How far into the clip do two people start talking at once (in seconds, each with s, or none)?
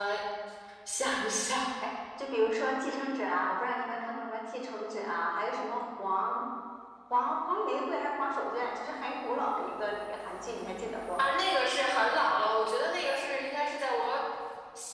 none